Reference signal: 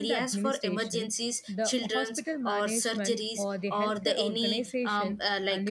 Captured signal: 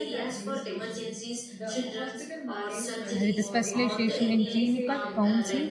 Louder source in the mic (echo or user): user